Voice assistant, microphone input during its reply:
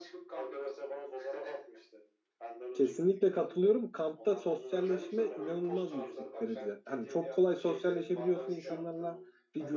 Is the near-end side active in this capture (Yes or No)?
Yes